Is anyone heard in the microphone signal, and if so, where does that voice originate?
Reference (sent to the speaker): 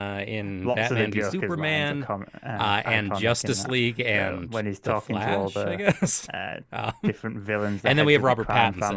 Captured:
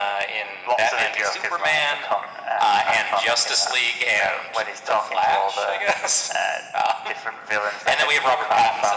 echo only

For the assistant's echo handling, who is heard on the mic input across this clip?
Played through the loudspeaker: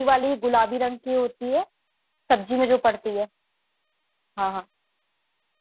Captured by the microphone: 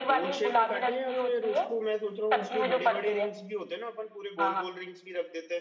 both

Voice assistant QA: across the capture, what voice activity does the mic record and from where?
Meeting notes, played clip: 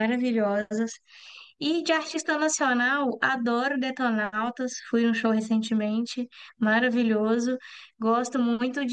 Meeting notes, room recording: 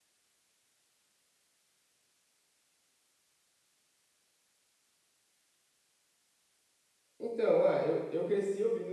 user only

